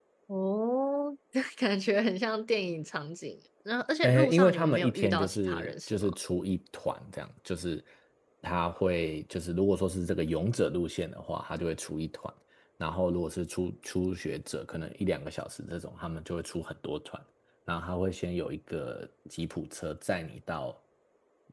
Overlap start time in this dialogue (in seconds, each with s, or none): 4.0 s